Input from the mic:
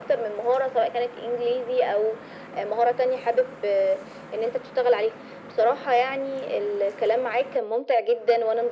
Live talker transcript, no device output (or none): none